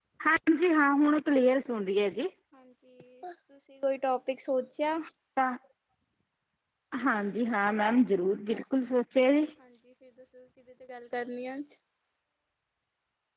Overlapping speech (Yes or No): No